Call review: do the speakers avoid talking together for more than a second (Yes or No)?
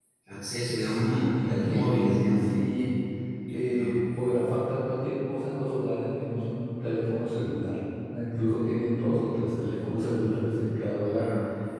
No